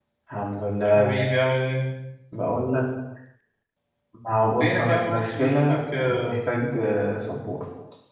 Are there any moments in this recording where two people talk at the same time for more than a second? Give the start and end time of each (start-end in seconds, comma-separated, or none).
4.6-6.4